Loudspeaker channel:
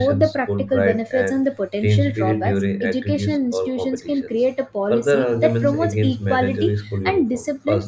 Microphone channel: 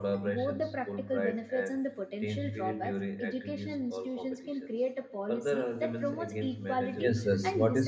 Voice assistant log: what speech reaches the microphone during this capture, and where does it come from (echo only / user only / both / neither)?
both